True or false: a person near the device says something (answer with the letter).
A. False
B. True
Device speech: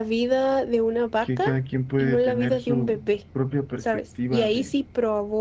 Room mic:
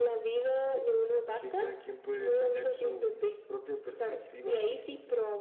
A